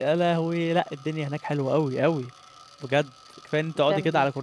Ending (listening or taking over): listening